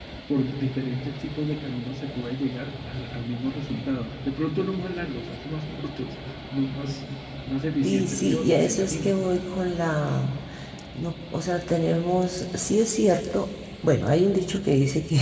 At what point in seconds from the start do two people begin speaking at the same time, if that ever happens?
7.8 s

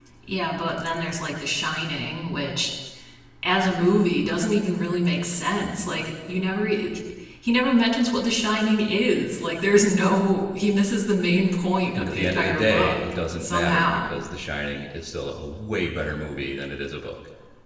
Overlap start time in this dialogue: 11.9 s

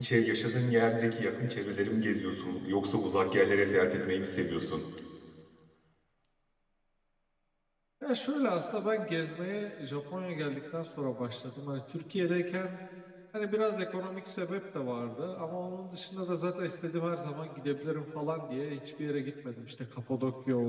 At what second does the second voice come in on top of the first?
none

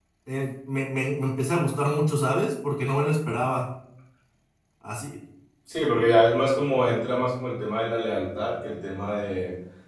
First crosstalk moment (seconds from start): none

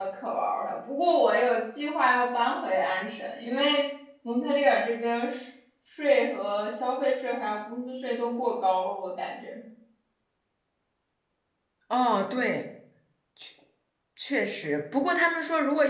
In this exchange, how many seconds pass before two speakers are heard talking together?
none

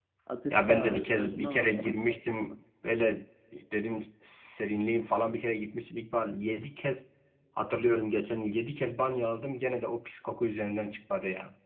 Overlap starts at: 0.5 s

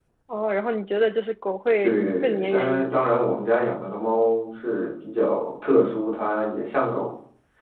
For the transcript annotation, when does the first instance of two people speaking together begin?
1.8 s

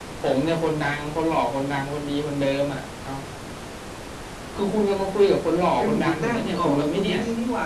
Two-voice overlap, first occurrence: 5.8 s

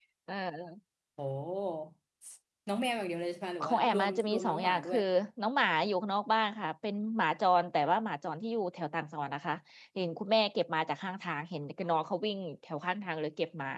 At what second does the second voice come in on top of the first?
3.6 s

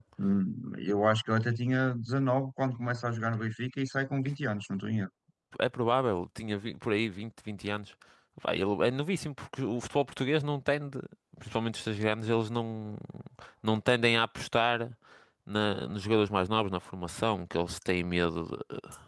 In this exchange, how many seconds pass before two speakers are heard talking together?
none

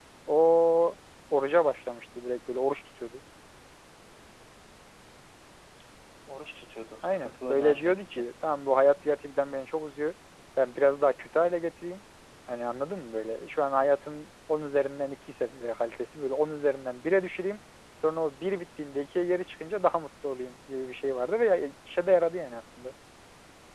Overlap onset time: 7.0 s

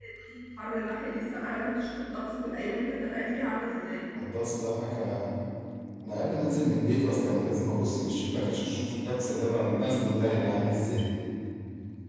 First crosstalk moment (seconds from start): none

